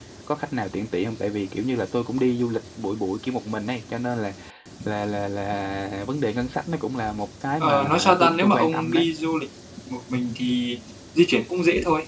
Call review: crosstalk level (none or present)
present